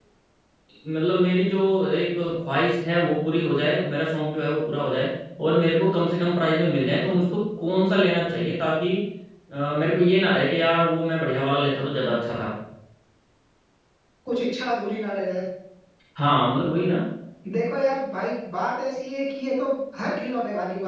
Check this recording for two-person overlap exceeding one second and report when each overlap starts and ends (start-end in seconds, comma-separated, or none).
none